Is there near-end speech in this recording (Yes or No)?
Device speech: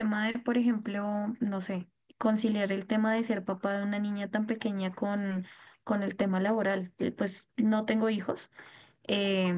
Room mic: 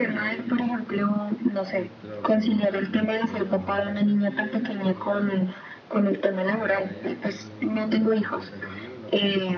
Yes